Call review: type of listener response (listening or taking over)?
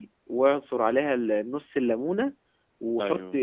listening